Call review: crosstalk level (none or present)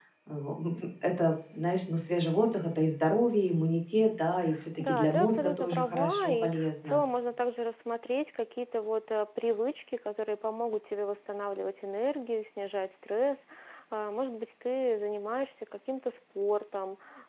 present